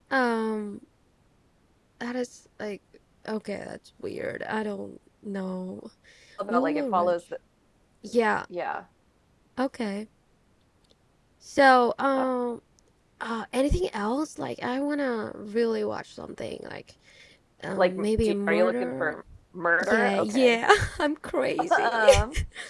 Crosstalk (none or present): present